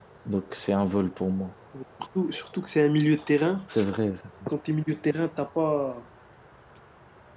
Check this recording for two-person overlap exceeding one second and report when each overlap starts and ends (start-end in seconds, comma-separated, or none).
none